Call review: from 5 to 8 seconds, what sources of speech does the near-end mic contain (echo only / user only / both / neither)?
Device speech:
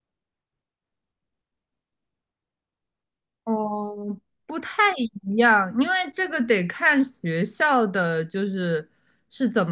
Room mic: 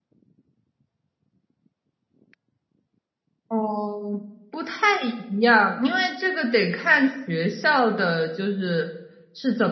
echo only